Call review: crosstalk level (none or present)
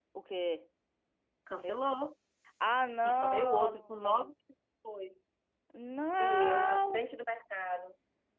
present